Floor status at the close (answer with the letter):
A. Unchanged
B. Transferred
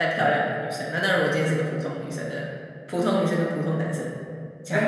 B